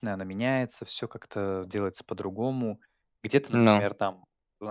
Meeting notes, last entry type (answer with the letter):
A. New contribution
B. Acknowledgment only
B